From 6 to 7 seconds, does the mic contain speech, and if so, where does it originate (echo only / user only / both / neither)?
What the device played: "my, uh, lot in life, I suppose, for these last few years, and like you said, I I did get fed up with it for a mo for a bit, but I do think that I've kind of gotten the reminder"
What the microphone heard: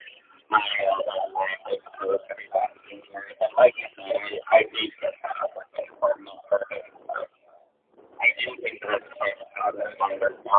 echo only